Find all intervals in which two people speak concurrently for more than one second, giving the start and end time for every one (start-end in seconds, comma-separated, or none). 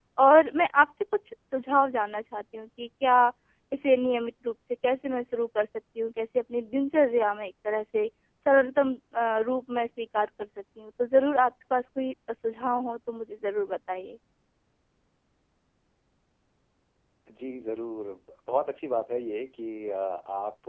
none